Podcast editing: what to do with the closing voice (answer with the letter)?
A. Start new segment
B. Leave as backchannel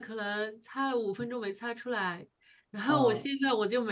B